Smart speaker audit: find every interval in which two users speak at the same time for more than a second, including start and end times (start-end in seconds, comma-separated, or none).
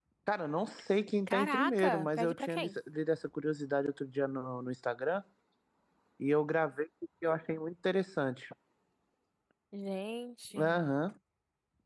1.3-2.7